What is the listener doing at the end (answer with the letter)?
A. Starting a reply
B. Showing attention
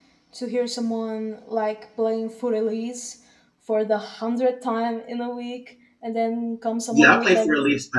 A